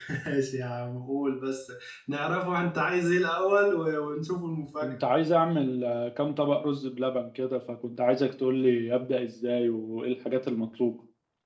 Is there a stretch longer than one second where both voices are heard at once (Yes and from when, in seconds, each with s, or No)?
No